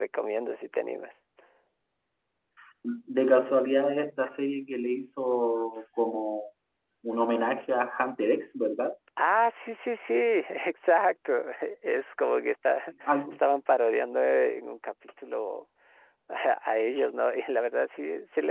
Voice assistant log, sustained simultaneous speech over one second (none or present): none